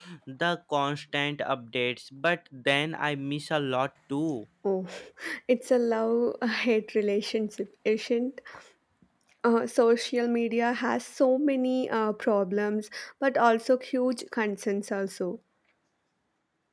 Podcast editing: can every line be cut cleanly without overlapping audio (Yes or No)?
Yes